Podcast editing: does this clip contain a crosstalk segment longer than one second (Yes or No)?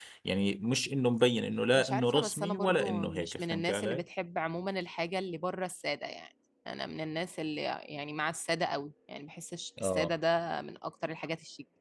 Yes